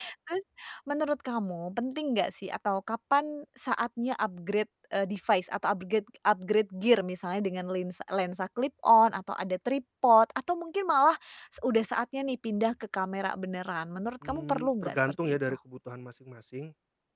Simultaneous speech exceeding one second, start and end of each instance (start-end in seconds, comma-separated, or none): 14.2-15.5